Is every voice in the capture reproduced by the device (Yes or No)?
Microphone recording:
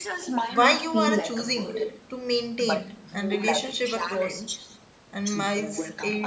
No